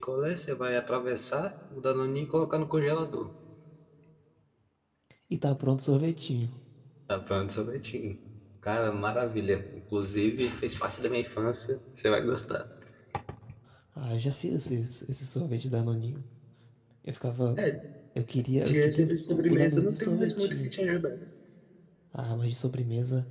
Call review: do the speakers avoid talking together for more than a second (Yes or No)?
No